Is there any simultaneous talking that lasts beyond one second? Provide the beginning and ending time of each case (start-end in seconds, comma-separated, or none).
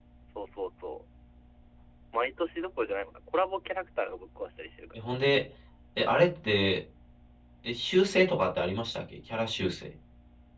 none